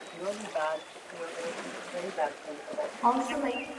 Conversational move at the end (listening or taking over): taking over